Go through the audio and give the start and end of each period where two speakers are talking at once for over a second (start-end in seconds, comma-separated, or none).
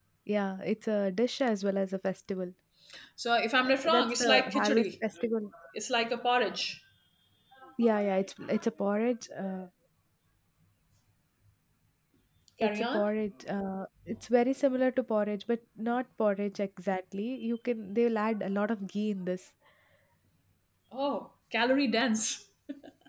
3.6-4.8